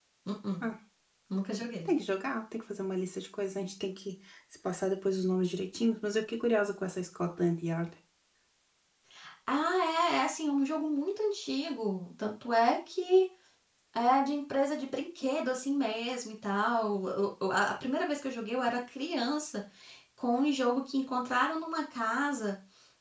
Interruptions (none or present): none